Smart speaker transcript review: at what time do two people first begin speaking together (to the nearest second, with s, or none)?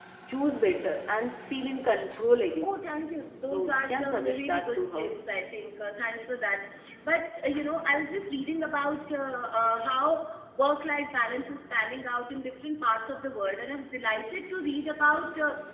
3 s